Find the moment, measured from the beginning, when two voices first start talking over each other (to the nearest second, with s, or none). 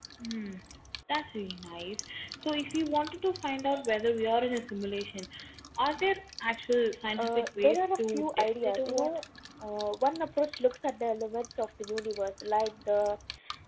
7 s